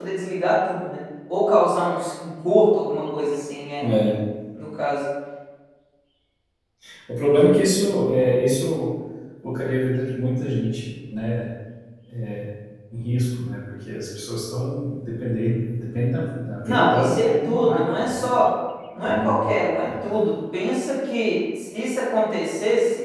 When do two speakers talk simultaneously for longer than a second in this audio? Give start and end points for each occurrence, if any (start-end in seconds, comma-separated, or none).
16.6-18.2